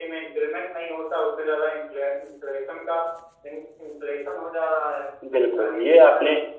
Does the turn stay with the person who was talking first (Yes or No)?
No